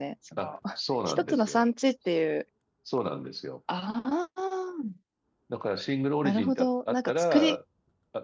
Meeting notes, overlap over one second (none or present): present